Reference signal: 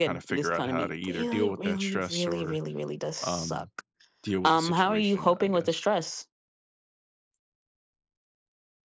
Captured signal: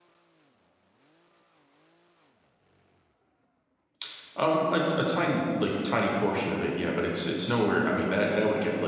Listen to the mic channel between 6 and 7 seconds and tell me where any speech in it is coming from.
user only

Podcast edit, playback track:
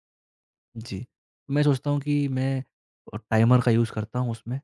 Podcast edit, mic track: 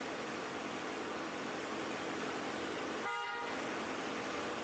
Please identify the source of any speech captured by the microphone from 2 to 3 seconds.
neither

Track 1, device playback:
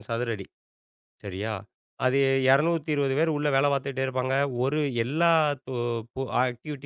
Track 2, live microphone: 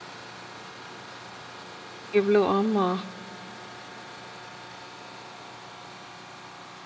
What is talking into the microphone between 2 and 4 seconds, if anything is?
user only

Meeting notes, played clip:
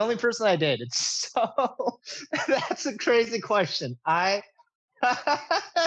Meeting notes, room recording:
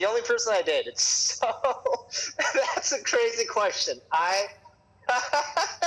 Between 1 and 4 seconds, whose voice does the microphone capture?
echo only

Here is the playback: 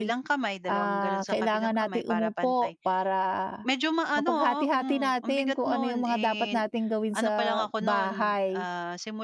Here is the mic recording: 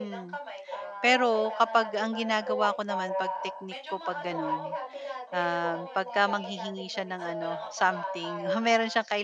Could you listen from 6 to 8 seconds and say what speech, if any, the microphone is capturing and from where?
both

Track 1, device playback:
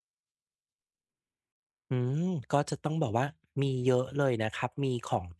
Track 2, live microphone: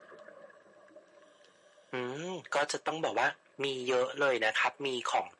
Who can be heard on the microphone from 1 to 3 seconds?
echo only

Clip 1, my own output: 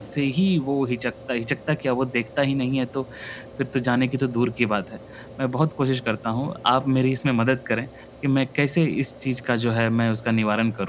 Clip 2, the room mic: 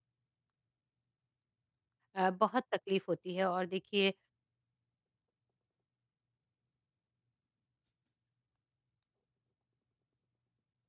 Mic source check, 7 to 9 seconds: neither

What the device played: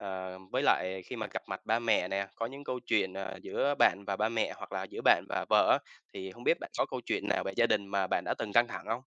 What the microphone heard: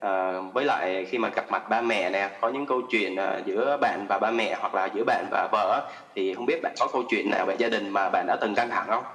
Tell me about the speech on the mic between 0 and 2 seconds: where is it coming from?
echo only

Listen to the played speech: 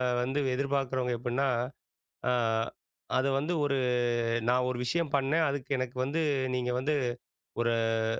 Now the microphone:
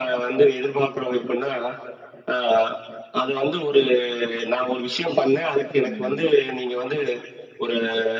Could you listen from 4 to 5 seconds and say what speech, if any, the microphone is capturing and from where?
echo only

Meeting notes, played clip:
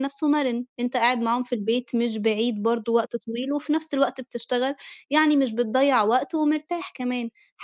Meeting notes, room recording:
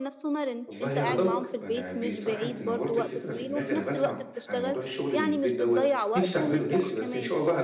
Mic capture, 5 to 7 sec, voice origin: both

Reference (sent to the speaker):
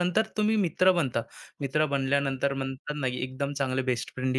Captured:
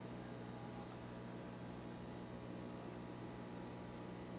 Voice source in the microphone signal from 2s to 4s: neither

